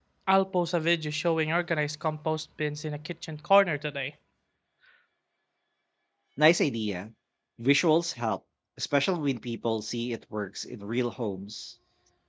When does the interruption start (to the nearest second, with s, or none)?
none